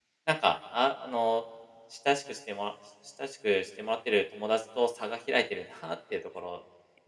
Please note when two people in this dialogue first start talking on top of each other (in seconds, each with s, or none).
none